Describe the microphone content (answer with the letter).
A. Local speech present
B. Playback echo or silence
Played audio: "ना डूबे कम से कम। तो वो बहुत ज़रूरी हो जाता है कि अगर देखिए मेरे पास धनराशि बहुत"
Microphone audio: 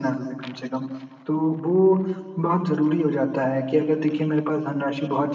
B